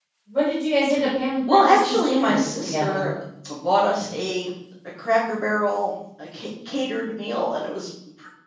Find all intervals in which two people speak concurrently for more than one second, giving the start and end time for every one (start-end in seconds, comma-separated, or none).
1.5-3.0